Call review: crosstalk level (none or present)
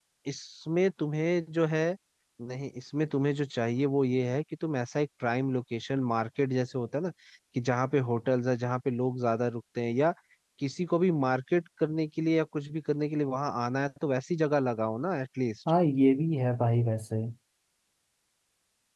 none